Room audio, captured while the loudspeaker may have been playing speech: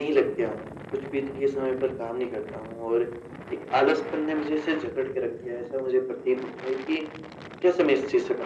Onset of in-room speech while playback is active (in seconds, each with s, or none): none